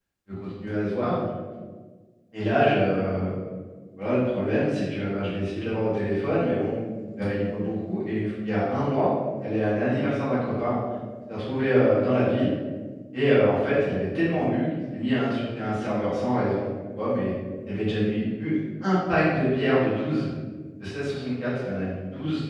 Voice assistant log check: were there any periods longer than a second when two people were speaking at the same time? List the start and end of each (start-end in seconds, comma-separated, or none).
none